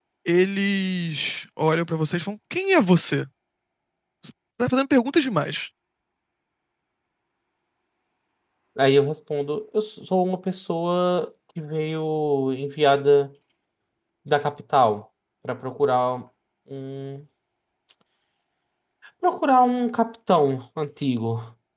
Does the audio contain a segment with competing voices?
No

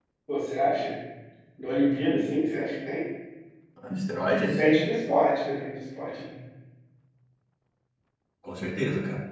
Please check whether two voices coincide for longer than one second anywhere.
No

